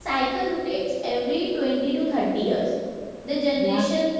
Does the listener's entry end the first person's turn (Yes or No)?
No